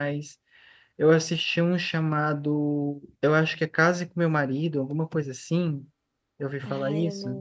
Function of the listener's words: taking over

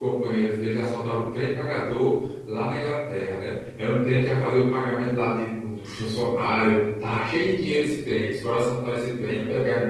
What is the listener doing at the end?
listening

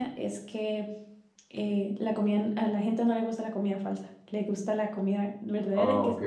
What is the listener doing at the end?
taking over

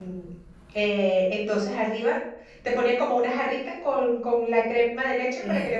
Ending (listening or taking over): listening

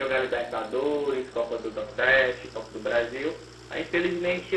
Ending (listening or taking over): listening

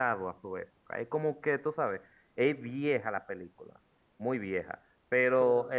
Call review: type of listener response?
listening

